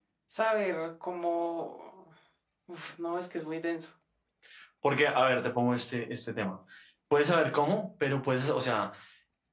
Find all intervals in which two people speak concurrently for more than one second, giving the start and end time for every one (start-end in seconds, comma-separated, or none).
none